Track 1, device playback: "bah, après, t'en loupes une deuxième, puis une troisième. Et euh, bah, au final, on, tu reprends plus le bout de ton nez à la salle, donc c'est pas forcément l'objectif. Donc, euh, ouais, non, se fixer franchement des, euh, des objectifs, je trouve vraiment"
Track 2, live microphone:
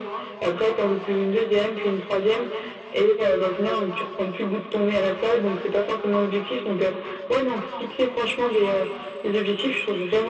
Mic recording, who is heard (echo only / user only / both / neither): echo only